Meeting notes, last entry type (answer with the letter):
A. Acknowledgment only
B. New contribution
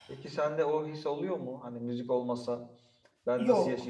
A